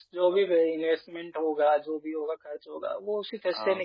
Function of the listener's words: listening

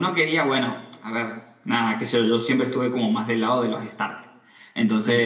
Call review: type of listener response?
listening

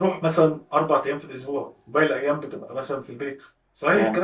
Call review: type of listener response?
taking over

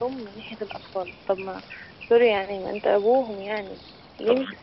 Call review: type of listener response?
listening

